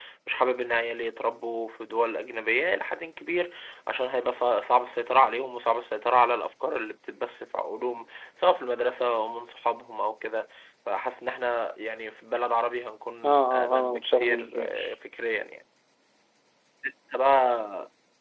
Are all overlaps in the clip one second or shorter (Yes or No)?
No